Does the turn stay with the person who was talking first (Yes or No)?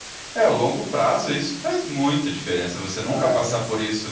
Yes